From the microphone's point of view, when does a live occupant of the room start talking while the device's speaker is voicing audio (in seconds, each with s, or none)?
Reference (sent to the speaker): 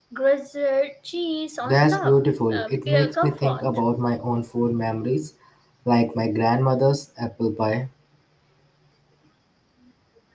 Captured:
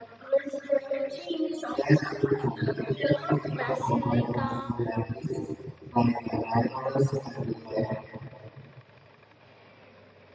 3.5 s